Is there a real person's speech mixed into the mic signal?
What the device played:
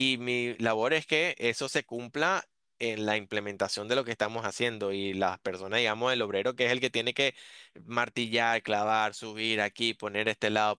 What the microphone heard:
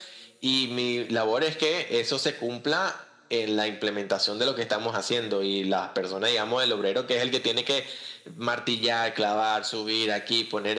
No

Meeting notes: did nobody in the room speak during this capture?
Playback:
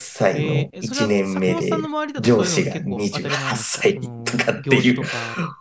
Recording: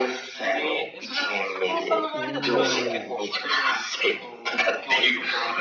No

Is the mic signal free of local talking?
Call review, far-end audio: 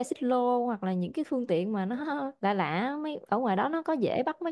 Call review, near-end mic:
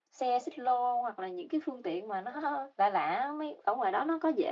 Yes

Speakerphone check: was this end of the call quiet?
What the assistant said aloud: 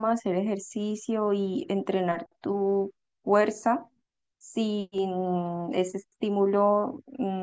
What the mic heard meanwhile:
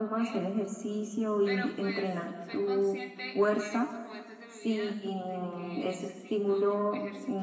No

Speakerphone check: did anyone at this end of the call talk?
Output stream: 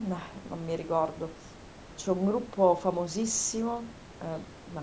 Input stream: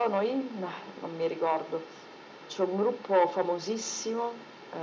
No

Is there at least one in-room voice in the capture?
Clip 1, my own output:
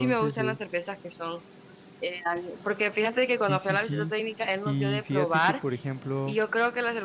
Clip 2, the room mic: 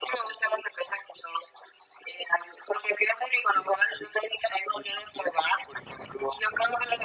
No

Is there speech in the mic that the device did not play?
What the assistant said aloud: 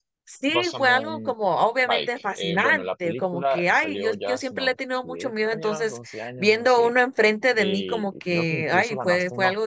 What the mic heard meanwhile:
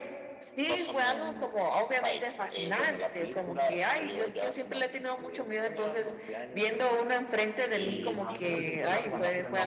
Yes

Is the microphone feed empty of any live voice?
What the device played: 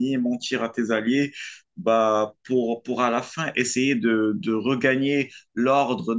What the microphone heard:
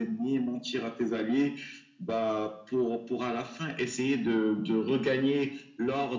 Yes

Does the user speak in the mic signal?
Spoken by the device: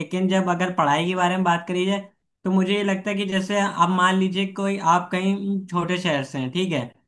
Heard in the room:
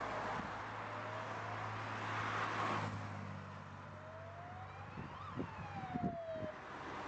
No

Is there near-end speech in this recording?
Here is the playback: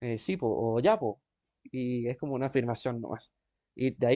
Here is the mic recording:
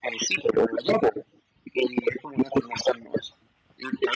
No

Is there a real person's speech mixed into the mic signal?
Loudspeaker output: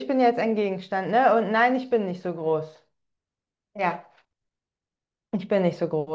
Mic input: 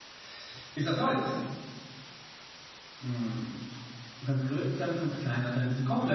Yes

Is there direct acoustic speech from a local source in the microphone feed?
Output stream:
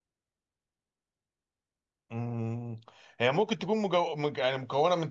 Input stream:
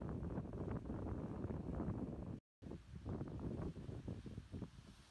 No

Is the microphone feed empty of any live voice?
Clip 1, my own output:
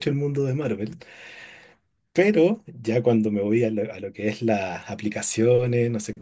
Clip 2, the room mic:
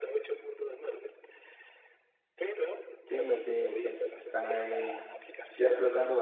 No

